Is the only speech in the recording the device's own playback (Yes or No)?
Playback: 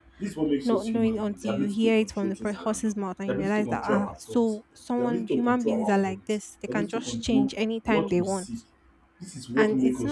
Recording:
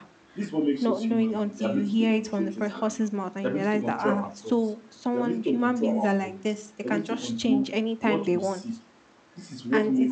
Yes